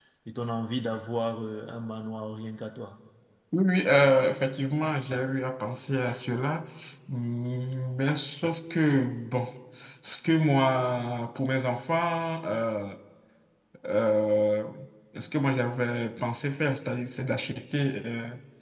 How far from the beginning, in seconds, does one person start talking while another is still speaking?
none

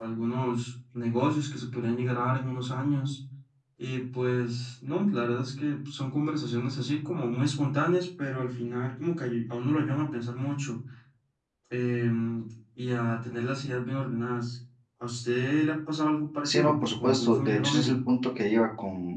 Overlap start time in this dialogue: 16.4 s

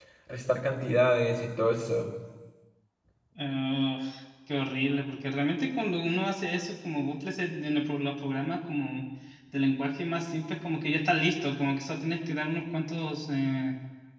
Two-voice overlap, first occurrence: none

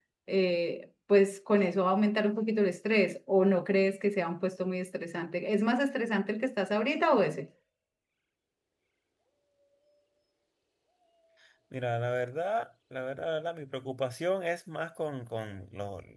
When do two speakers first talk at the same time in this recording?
none

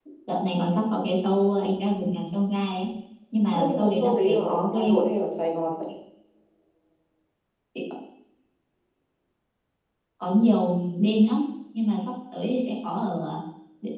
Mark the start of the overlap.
3.5 s

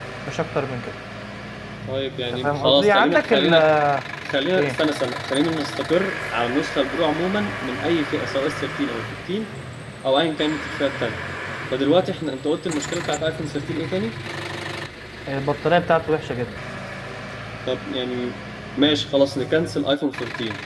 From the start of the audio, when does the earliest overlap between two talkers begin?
2.3 s

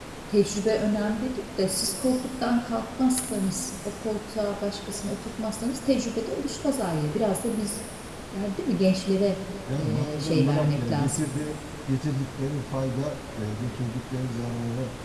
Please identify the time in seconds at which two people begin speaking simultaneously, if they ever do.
9.7 s

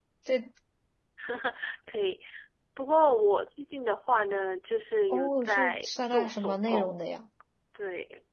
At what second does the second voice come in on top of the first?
5.1 s

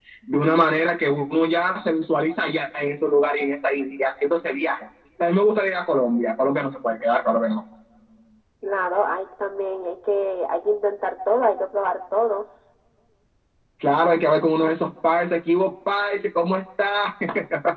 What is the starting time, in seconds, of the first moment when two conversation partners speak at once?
none

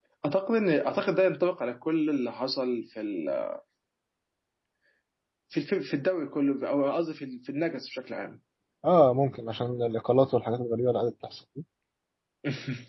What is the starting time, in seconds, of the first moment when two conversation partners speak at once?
none

